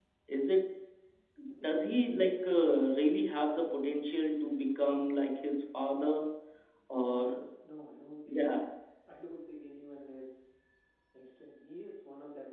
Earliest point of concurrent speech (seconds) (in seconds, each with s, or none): 1.6 s